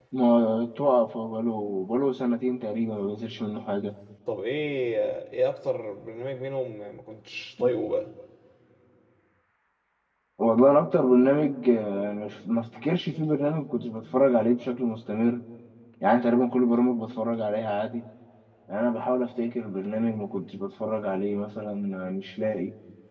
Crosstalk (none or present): none